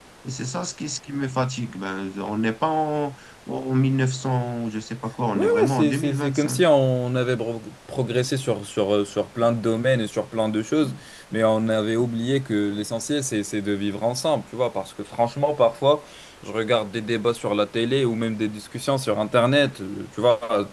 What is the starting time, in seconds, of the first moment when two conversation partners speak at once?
5.3 s

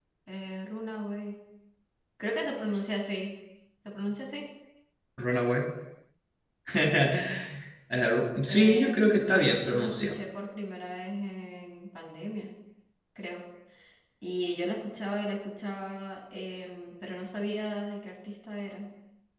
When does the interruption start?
8.5 s

